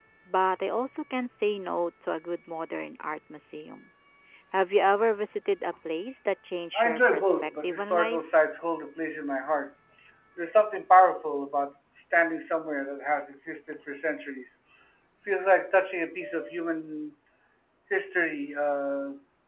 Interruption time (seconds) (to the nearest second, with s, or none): 7 s